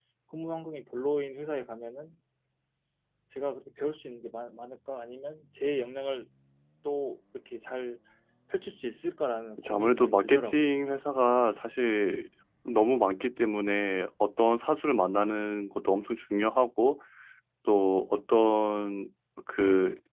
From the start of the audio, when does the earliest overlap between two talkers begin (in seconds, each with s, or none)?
9.6 s